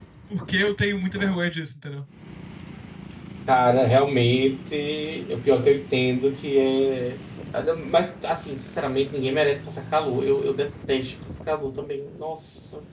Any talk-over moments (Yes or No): No